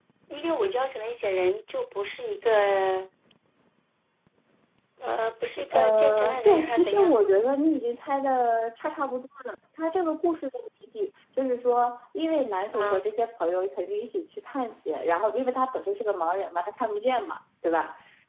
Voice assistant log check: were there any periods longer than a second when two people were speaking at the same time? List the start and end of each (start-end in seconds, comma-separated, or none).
5.7-7.2